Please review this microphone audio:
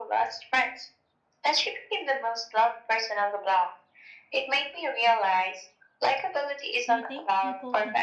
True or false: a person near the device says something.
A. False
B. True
B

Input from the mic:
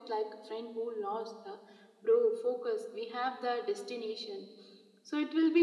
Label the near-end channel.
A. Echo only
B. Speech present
A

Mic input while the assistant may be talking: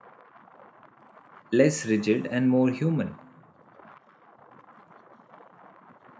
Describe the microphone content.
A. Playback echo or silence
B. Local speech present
B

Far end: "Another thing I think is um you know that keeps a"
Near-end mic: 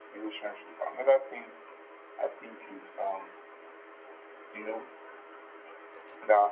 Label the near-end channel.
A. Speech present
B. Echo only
B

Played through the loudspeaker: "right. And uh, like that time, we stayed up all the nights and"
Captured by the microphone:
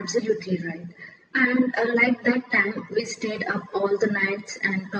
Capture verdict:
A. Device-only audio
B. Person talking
A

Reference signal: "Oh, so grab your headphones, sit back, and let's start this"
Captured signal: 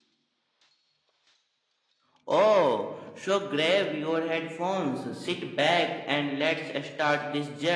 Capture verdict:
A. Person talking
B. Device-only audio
B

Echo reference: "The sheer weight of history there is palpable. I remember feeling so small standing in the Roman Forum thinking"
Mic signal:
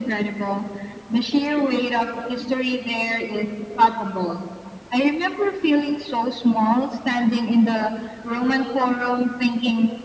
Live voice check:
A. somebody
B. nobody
B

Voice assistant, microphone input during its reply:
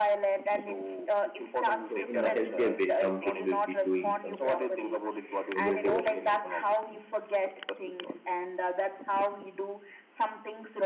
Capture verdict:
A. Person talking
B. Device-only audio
A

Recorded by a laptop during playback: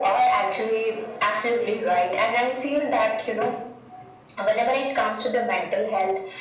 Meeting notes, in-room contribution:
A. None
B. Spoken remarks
A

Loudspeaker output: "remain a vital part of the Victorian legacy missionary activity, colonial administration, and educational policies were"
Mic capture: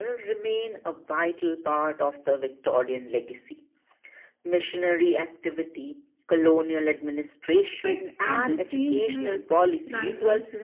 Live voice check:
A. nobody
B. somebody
B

